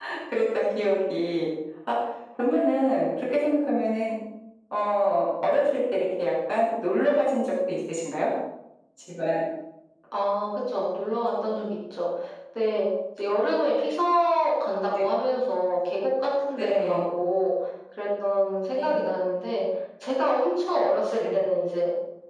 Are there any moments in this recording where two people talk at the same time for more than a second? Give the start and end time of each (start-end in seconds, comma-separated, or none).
none